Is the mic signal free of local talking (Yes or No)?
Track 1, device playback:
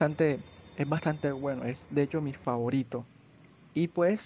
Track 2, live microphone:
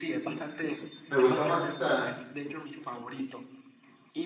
No